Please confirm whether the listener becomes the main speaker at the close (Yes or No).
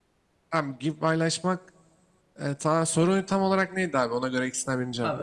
Yes